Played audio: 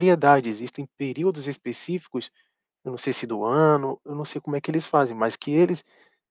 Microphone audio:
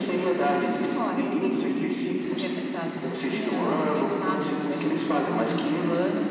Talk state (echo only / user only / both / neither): both